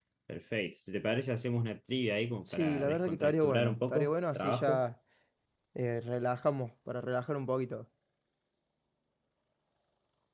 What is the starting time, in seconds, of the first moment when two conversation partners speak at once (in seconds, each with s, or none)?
2.5 s